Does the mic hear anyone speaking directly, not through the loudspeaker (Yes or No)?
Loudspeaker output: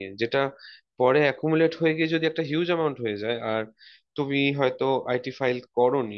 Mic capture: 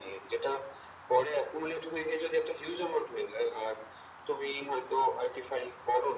No